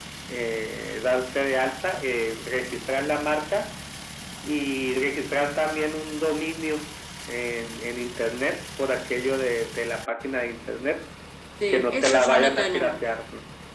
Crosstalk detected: Yes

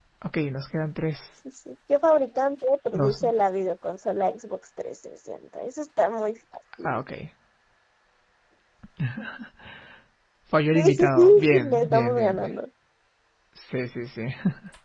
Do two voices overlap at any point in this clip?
Yes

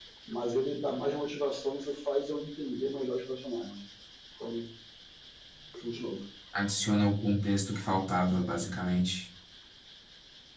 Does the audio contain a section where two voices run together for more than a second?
No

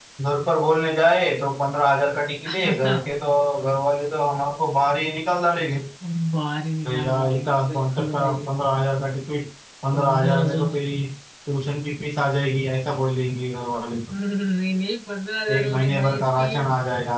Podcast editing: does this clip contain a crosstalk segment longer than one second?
Yes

